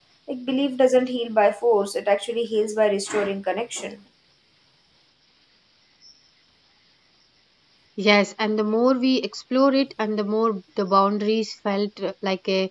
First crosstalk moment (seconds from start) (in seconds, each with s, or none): none